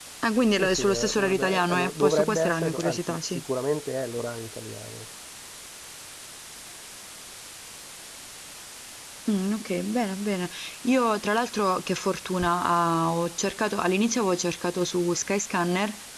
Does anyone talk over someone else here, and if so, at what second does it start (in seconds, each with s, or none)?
0.6 s